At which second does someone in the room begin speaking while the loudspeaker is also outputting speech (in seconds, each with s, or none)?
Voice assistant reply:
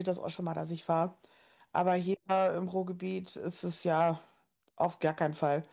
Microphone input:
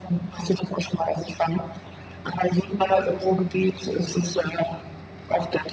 2.7 s